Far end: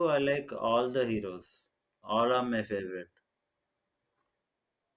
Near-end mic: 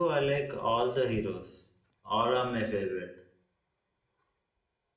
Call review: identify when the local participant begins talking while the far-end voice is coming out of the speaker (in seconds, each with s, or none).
none